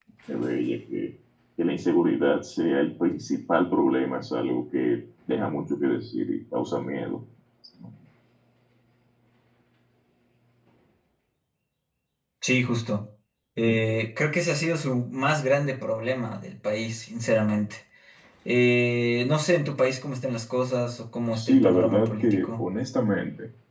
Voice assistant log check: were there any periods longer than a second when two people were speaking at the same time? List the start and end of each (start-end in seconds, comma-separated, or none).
21.3-22.7